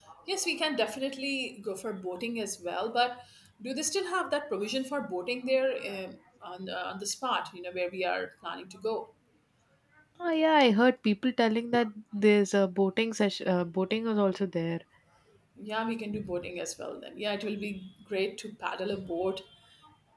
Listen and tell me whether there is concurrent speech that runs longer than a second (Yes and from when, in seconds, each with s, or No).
No